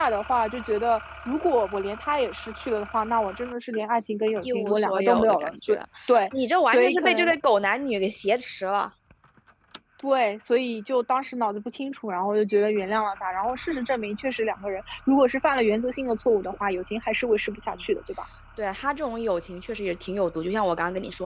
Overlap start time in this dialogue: 4.4 s

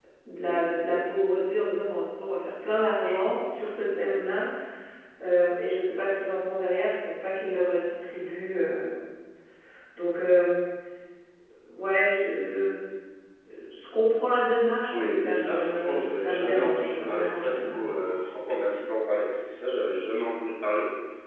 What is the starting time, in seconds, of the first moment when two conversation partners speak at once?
14.9 s

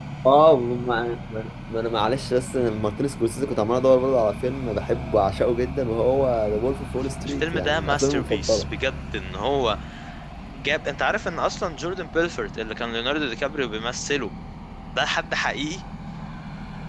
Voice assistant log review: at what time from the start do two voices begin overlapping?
7.3 s

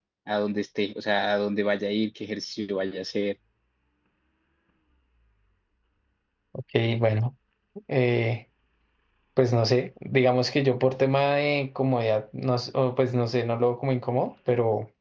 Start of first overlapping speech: none

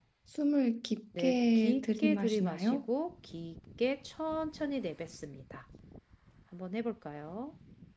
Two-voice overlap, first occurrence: 1.2 s

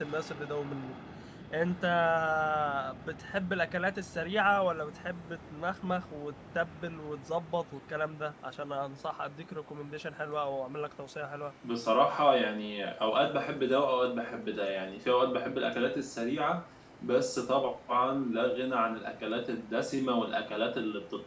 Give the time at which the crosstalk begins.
none

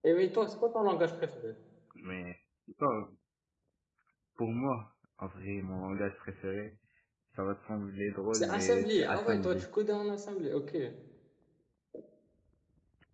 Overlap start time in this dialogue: 8.3 s

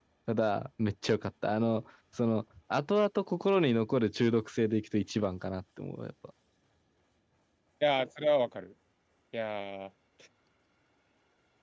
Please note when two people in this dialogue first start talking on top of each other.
none

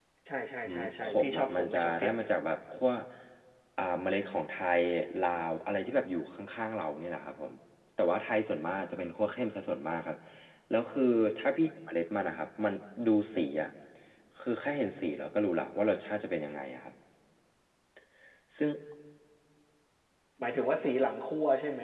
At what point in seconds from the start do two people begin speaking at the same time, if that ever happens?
0.6 s

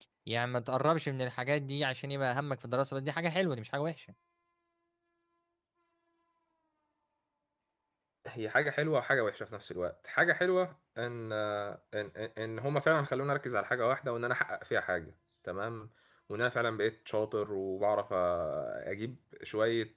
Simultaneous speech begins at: none

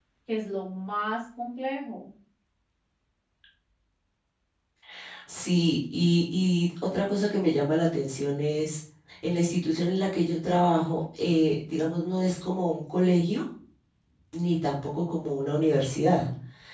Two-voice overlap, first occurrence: none

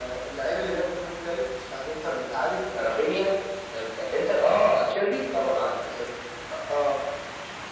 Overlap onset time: none

